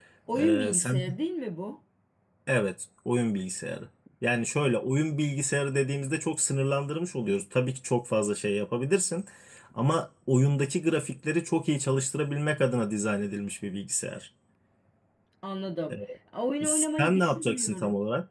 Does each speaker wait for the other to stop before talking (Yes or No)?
No